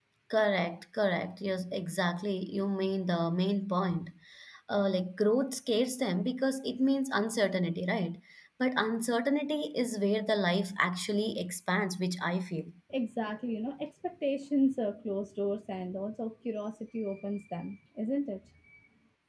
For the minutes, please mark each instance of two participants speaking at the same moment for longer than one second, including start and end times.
none

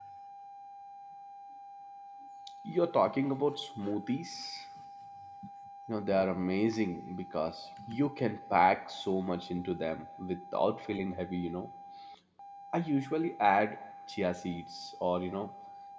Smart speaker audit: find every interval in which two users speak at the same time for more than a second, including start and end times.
none

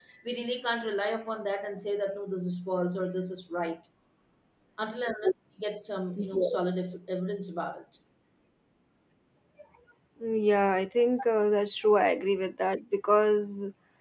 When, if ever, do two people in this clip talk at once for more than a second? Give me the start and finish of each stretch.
none

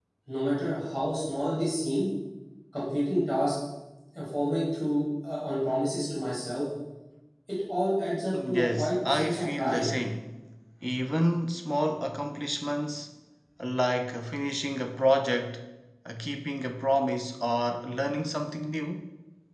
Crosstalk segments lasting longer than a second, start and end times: 8.3-9.8

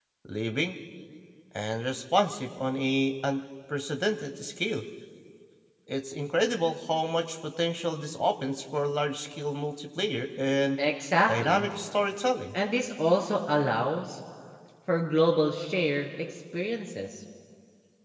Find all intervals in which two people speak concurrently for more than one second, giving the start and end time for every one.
none

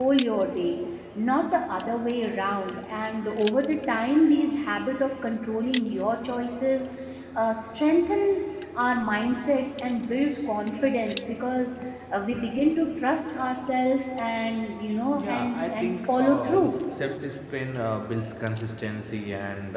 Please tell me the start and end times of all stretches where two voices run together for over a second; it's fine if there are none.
15.2-16.7

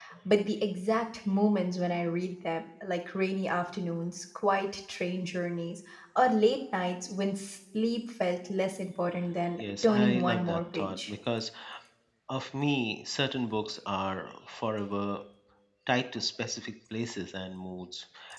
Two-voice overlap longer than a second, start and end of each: 9.6-11.1

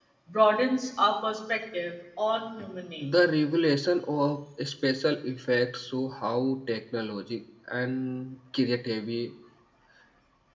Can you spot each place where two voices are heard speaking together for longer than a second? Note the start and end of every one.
none

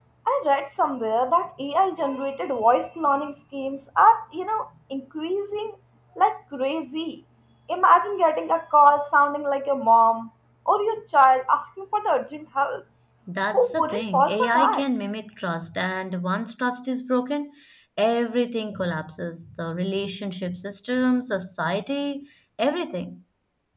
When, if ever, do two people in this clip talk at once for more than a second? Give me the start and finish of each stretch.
13.5-14.8

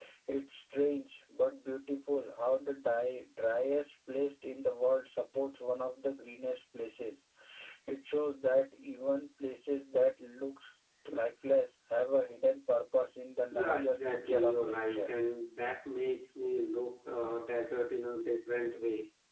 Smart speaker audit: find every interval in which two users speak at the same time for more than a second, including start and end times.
13.5-15.1

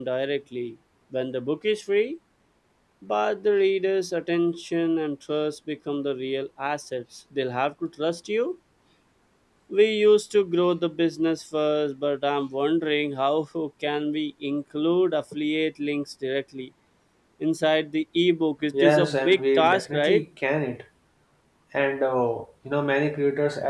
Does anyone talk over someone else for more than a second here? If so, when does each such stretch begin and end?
18.8-20.2

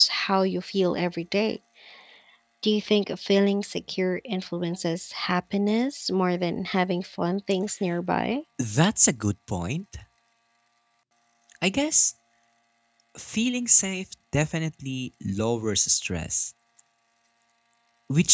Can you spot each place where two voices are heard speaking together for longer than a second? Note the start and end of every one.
none

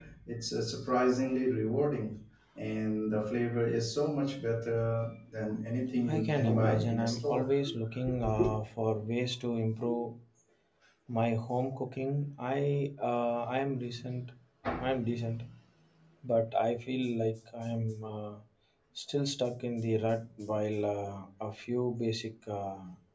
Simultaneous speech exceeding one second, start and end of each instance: 6.1-7.5

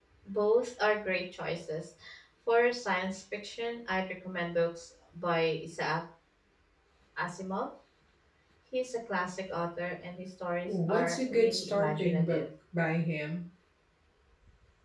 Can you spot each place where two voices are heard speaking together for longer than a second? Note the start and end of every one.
10.7-12.4

